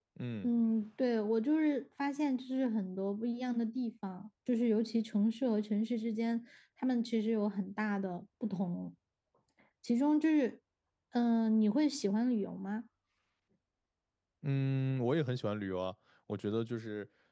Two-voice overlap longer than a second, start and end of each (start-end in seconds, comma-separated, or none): none